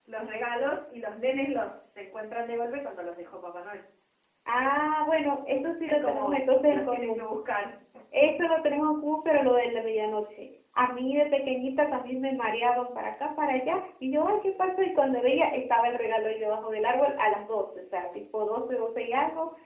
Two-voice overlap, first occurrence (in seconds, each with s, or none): 5.9 s